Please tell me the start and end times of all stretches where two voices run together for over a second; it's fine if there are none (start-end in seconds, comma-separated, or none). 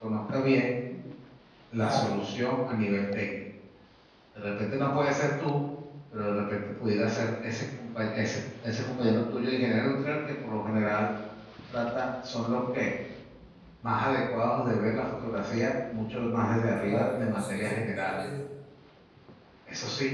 16.8-18.1